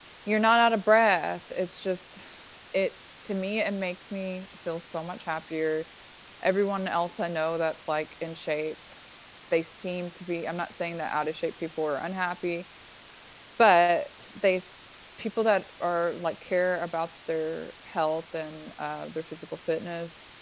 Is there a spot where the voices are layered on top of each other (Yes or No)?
No